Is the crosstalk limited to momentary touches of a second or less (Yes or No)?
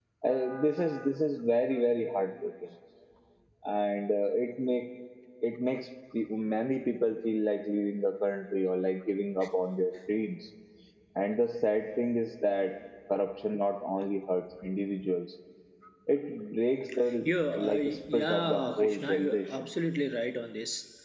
No